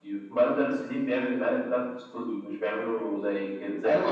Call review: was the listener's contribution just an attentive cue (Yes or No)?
No